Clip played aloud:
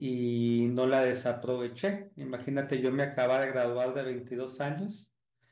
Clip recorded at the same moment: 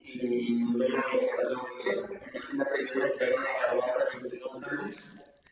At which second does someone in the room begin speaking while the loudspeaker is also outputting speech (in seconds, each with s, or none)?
none